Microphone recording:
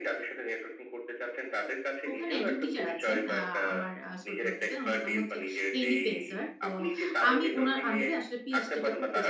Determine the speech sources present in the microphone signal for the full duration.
both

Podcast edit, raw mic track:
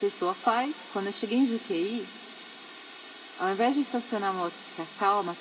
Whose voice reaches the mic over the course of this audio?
echo only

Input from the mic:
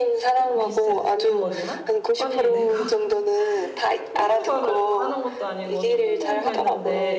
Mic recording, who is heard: both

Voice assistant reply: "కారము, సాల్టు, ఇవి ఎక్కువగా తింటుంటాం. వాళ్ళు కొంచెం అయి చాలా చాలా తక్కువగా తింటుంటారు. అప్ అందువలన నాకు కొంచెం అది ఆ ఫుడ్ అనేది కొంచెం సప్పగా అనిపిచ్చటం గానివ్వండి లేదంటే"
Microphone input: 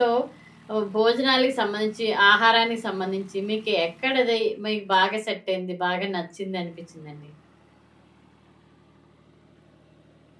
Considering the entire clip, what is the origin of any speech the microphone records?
user only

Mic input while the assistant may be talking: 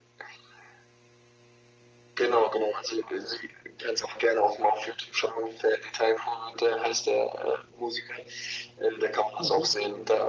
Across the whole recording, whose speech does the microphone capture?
both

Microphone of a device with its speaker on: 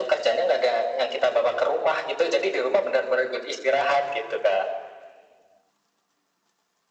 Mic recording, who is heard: echo only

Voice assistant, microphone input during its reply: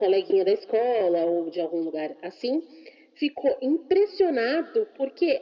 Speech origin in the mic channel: echo only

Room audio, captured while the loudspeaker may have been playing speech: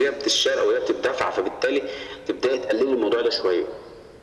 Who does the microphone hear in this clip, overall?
echo only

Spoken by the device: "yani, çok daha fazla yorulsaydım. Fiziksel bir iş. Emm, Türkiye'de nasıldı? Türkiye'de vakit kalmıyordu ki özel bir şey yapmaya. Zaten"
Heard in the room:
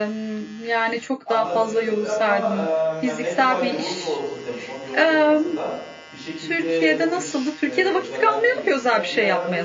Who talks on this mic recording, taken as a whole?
both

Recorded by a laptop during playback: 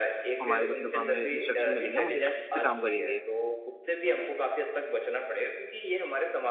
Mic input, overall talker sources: both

